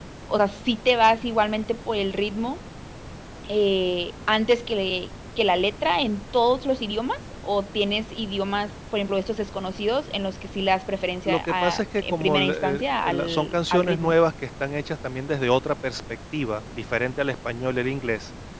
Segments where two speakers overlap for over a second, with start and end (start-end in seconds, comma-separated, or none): 11.3-14.1